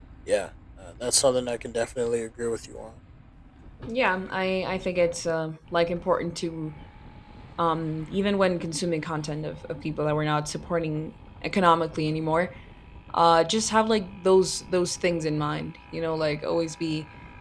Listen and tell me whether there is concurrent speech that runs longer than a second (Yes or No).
No